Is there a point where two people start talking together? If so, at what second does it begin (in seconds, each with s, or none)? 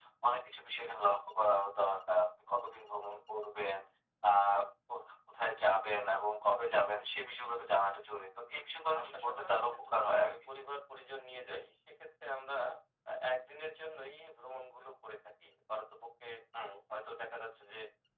8.9 s